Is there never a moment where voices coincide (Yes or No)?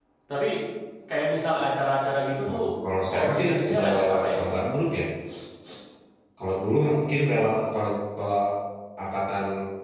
No